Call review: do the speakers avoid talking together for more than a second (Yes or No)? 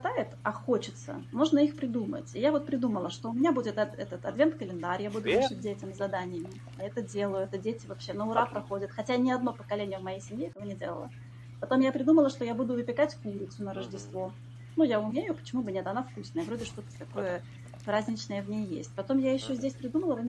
Yes